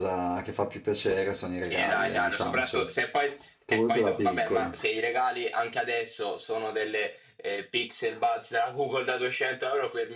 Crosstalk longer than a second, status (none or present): present